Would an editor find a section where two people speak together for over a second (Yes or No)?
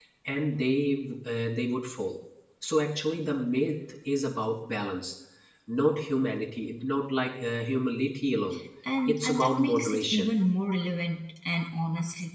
Yes